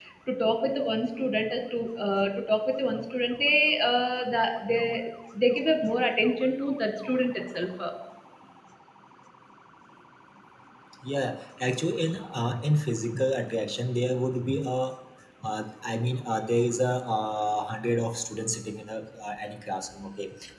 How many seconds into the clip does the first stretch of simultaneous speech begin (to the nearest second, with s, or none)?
none